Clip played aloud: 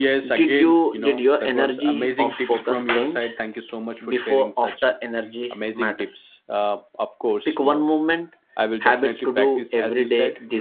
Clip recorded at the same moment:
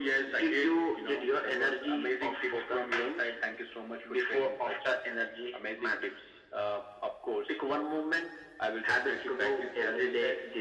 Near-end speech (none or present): none